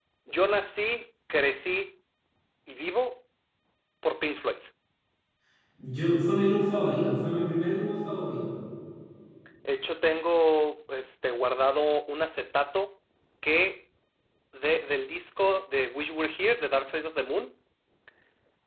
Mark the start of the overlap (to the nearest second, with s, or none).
none